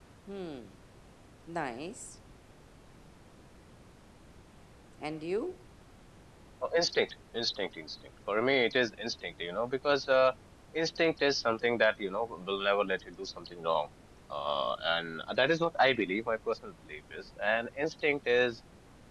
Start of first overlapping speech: none

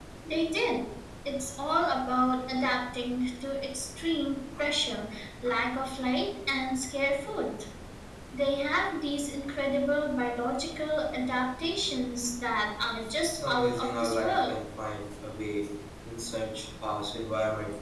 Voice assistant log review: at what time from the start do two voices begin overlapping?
13.3 s

